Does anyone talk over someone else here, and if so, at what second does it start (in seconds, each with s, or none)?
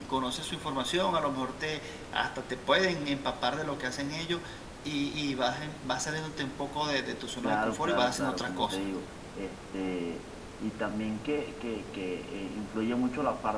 7.4 s